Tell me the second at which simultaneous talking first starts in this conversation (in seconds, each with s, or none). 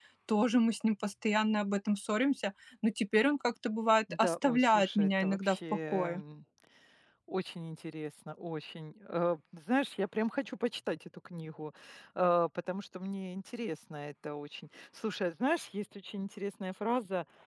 4.1 s